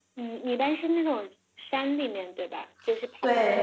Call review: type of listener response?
taking over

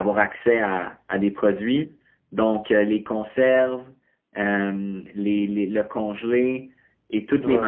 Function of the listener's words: listening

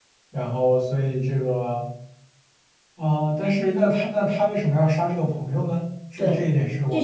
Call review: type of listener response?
taking over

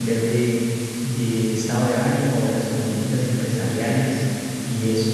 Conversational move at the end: taking over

